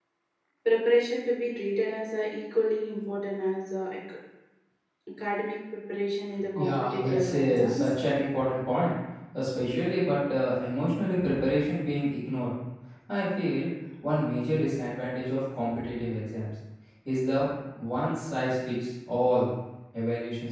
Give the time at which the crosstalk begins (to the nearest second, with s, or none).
7 s